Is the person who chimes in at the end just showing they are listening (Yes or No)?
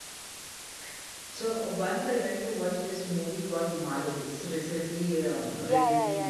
No